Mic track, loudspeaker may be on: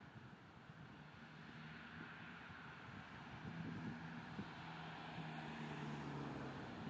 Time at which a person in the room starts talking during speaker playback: none

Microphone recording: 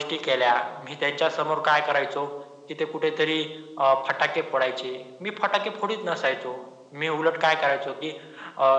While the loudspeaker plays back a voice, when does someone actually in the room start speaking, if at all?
none

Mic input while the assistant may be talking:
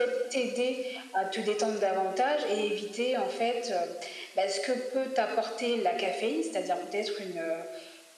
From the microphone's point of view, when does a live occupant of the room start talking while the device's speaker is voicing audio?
none

